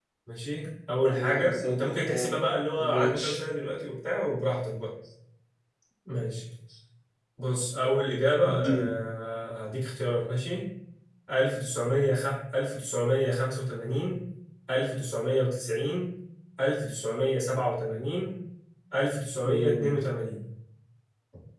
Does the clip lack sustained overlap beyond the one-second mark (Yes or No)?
No